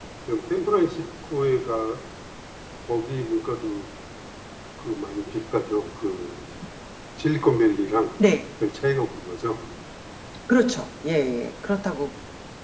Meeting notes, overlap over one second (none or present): none